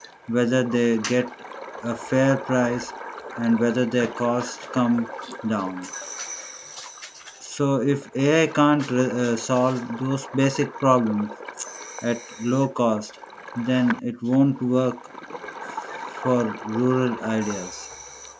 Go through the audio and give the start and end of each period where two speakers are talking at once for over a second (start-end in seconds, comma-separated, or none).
none